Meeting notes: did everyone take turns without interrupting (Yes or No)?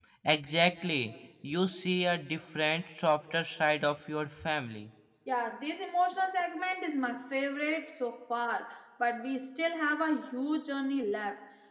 Yes